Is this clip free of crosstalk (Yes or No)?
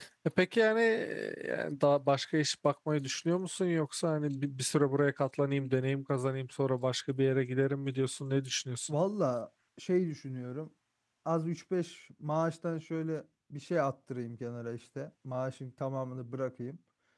Yes